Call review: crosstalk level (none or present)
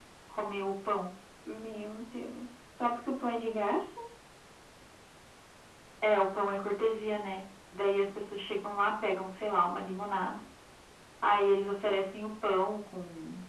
none